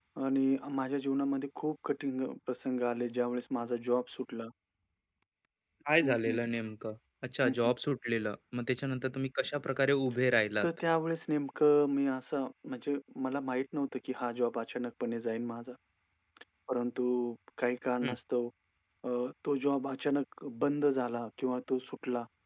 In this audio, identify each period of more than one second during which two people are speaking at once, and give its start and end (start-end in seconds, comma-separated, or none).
none